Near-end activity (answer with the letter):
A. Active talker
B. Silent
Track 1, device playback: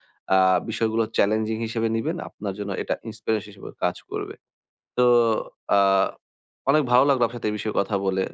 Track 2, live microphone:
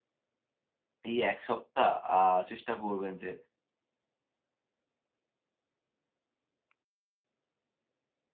A